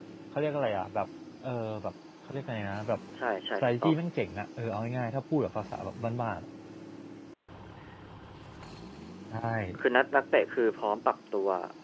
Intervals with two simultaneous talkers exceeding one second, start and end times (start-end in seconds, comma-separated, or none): none